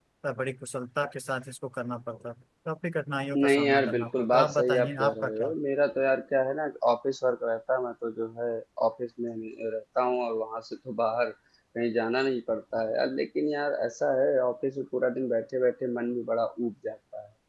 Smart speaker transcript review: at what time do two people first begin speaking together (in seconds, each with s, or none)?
3.3 s